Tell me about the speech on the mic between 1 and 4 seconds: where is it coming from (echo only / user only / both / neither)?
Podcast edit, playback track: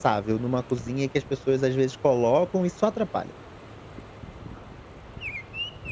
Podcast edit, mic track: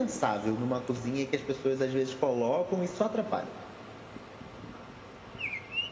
echo only